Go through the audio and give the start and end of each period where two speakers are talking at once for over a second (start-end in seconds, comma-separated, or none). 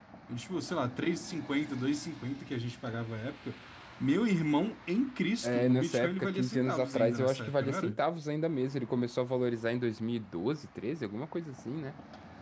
5.4-8.0